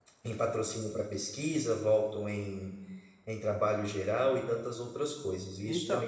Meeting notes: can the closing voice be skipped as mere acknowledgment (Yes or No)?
No